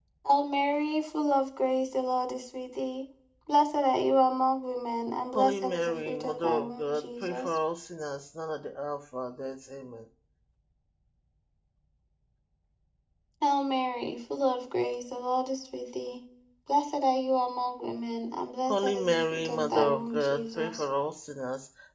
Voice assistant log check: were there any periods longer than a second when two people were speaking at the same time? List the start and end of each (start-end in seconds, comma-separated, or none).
5.3-7.5, 18.7-20.8